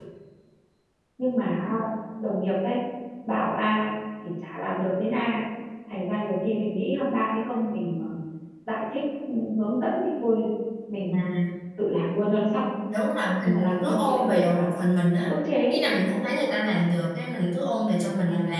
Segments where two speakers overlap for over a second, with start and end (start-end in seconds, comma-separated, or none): 13.4-14.7